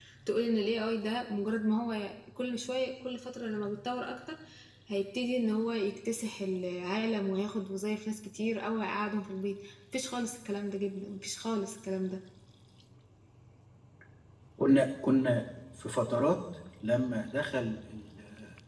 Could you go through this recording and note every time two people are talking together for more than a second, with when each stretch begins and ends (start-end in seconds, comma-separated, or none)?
none